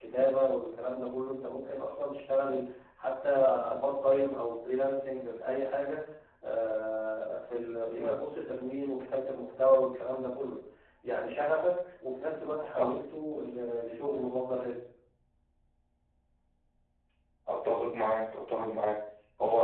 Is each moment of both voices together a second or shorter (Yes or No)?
Yes